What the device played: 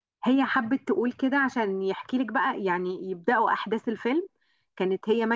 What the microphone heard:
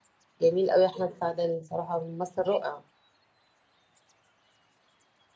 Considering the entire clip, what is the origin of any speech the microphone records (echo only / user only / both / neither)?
user only